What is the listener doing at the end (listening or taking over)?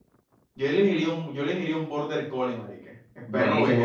taking over